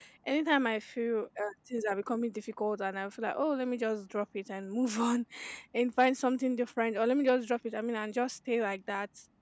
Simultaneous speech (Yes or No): No